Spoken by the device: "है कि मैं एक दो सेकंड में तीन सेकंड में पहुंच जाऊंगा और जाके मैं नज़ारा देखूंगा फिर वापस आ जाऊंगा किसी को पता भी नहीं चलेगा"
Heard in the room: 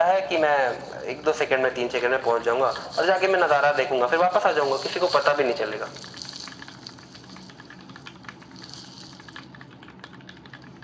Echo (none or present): present